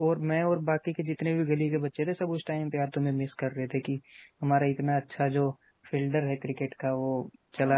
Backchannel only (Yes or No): Yes